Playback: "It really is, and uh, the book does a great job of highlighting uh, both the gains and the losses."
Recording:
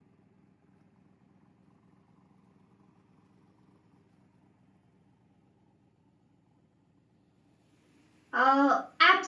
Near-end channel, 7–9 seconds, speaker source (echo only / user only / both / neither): user only